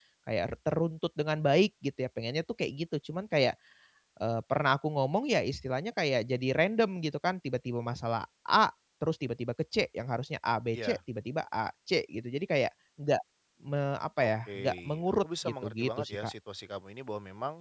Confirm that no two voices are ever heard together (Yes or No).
No